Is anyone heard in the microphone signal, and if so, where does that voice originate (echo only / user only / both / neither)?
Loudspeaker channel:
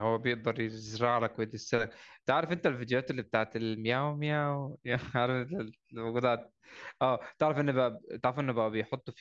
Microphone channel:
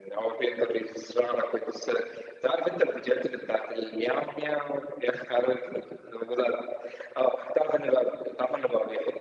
echo only